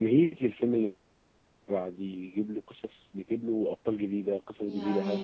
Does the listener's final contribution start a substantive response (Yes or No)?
No